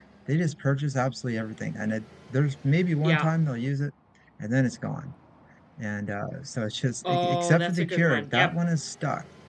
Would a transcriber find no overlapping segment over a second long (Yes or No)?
No